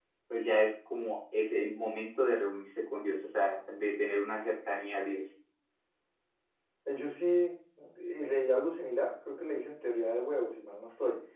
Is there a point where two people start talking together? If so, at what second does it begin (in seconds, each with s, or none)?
none